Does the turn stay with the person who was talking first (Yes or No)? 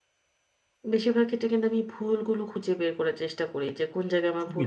Yes